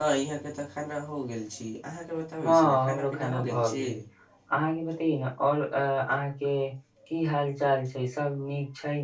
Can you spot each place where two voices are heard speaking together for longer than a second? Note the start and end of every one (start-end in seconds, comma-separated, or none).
2.4-3.8